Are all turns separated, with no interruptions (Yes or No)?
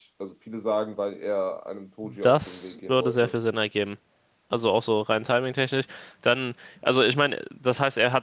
No